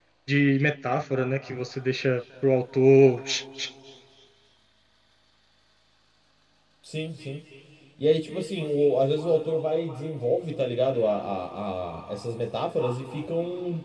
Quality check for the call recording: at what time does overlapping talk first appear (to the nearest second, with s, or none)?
none